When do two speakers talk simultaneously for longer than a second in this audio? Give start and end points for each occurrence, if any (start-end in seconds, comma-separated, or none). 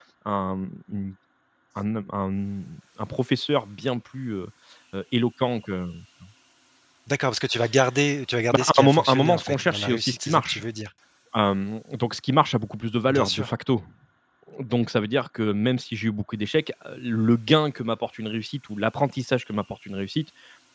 8.5-10.6